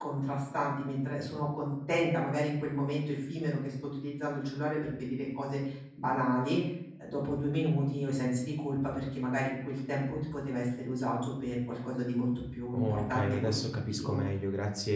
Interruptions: present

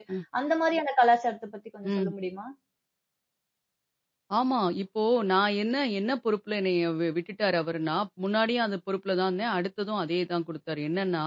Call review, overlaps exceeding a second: none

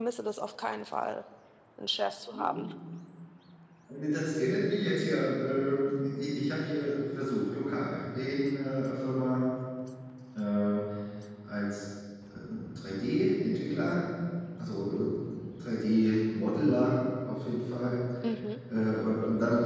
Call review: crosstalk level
none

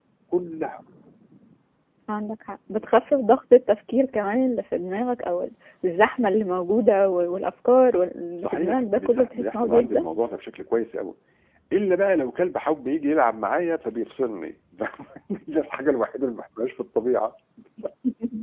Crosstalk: present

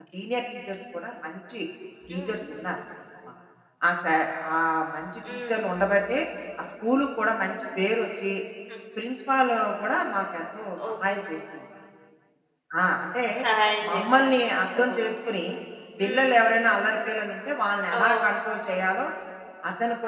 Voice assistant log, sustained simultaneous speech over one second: none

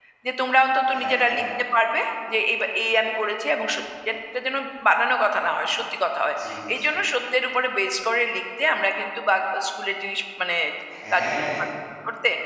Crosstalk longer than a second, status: none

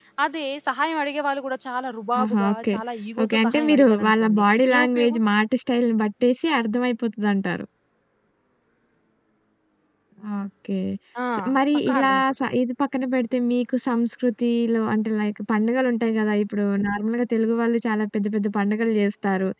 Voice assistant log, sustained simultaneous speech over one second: present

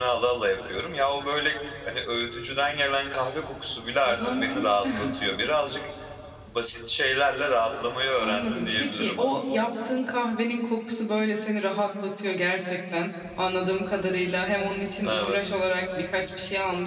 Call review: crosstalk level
present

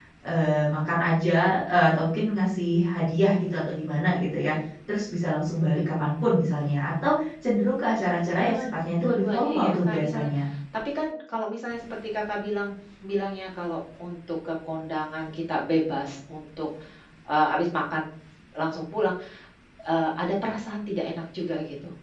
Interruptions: present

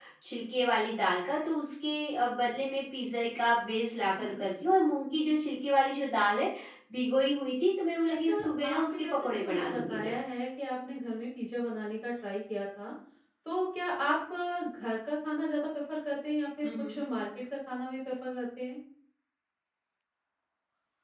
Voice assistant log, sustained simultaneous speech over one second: present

